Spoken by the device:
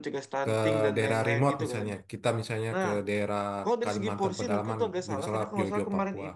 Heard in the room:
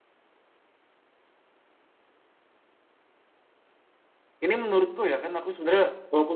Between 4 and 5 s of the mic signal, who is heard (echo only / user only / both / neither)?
user only